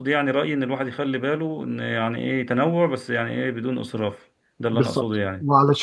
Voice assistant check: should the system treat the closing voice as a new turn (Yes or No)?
Yes